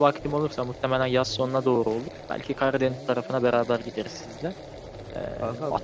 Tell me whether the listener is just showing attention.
Yes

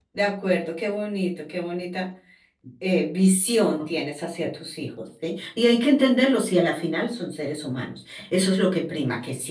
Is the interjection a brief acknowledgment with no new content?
Yes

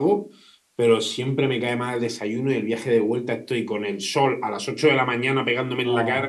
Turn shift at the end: No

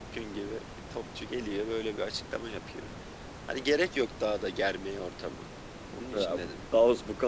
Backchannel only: No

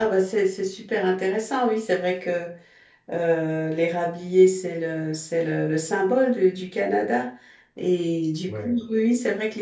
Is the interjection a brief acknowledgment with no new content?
Yes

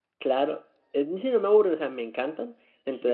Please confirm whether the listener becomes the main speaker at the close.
No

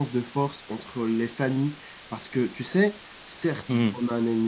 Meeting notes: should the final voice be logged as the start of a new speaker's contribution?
No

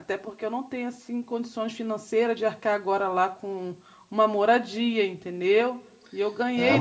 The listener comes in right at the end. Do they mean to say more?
Yes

